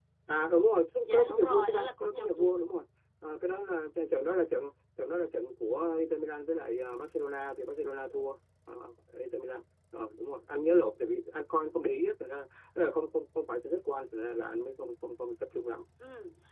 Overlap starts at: 1.1 s

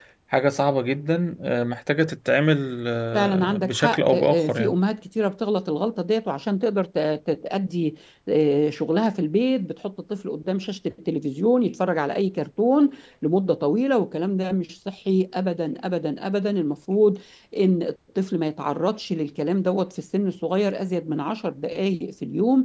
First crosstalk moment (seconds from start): 3.1 s

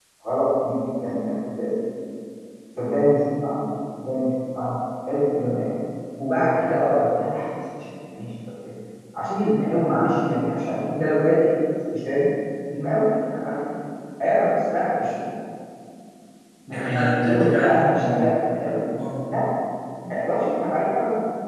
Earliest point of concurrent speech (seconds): 16.8 s

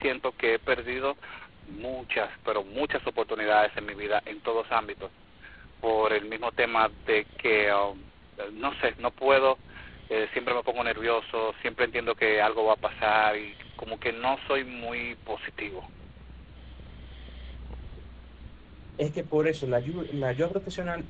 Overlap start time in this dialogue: none

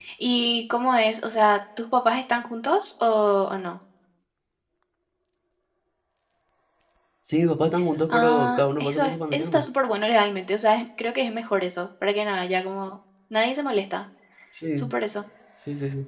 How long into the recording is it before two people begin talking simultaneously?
8.1 s

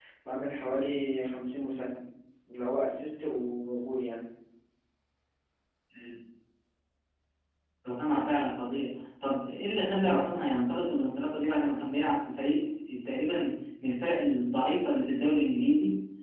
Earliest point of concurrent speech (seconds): none

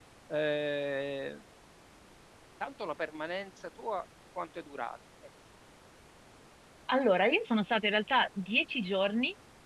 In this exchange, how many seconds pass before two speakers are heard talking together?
none

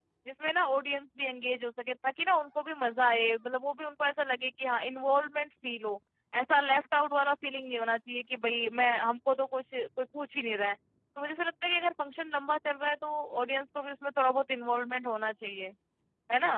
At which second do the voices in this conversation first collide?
none

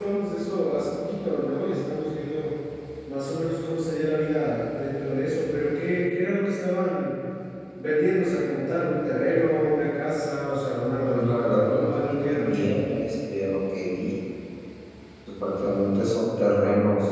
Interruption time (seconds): 11.1 s

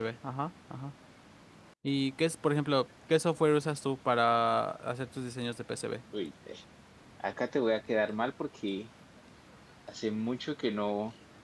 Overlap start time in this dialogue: none

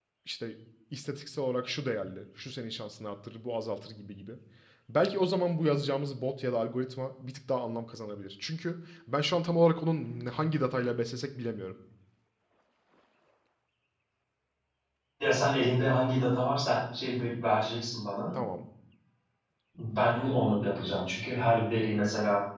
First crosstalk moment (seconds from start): none

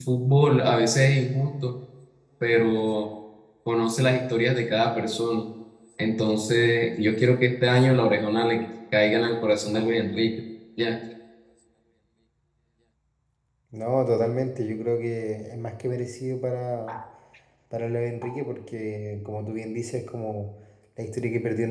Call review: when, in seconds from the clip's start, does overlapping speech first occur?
none

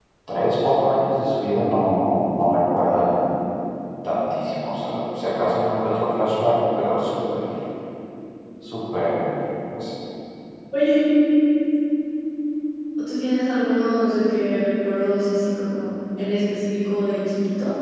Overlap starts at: none

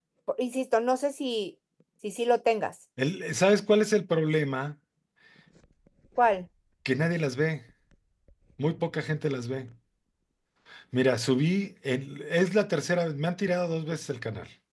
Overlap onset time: none

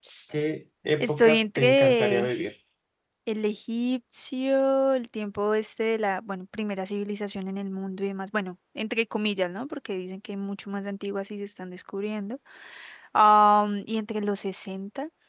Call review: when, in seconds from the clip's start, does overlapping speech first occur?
1.0 s

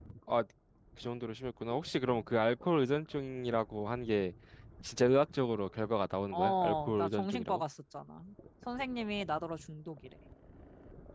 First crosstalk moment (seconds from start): 6.3 s

